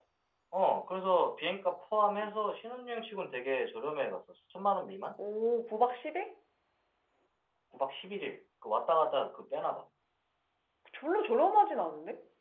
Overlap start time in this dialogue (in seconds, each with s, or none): none